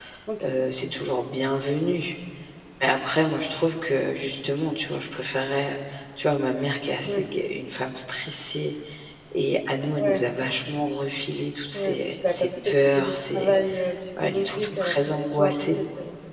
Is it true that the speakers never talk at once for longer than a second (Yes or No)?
No